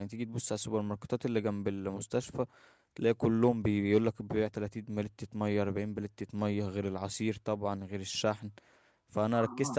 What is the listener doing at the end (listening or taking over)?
listening